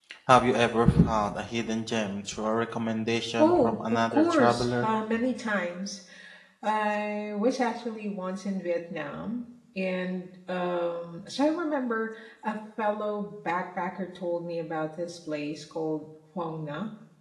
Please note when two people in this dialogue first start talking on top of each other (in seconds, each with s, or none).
3.4 s